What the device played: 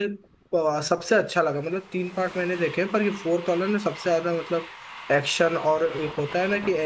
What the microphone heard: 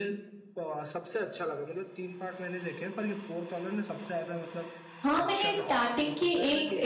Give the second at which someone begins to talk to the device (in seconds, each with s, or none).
5.0 s